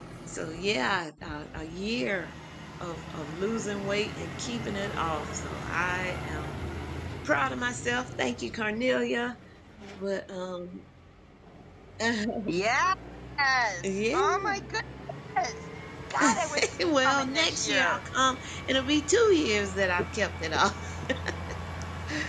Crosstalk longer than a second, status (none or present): present